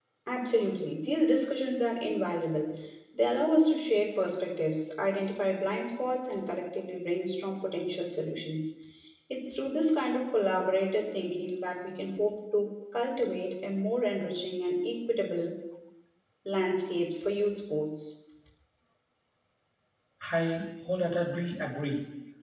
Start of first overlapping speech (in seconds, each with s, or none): none